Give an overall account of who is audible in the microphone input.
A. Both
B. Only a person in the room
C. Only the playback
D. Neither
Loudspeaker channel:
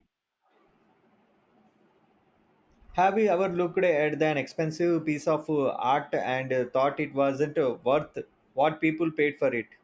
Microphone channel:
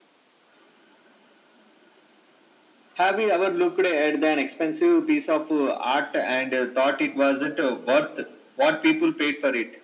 C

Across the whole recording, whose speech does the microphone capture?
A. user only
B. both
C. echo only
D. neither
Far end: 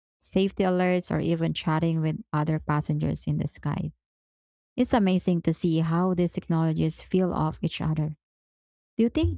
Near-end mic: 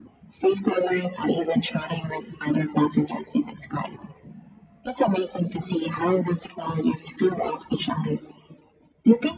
C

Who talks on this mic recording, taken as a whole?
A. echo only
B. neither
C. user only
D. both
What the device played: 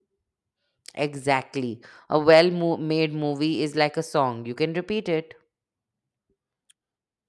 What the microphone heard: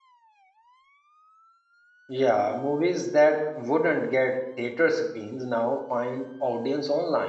C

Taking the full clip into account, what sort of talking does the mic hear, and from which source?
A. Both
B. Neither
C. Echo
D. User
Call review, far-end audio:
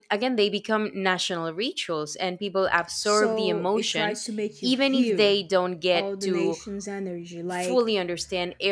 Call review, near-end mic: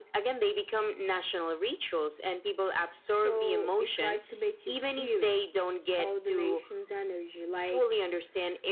C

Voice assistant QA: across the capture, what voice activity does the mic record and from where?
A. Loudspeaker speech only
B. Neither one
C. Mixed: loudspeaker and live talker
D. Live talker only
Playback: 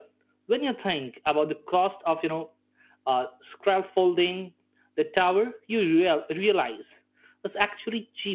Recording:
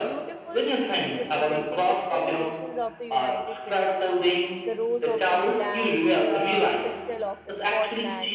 C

